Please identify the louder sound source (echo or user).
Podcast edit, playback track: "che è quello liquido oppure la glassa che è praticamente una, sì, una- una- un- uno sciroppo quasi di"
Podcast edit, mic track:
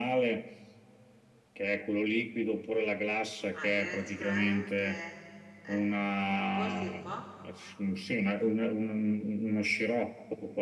echo